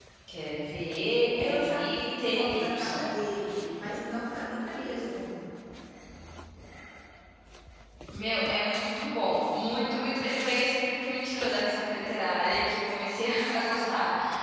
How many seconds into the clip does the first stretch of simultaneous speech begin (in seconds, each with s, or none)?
1.4 s